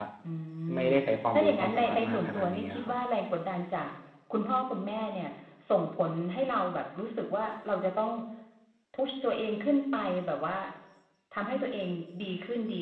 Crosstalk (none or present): present